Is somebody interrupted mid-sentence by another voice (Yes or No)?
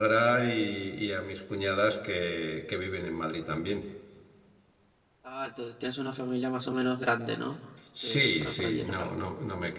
Yes